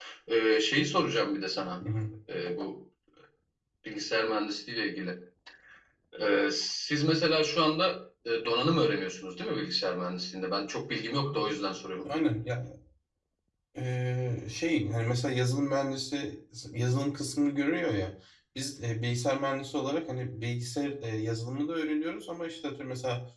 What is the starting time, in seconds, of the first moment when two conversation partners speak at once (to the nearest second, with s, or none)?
none